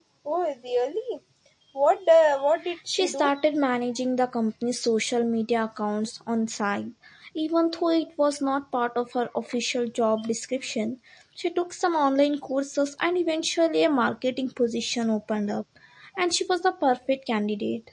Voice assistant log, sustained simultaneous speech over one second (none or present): none